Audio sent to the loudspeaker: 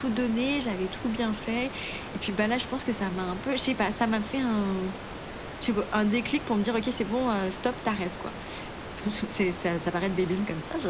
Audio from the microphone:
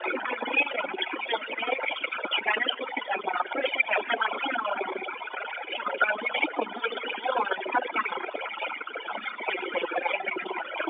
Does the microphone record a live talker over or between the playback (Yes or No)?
No